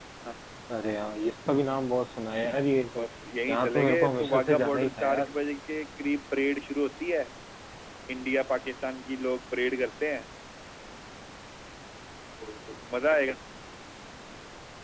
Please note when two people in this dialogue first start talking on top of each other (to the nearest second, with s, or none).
3 s